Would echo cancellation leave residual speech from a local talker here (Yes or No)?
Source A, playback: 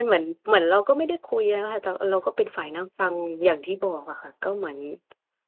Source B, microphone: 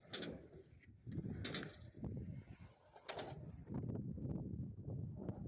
No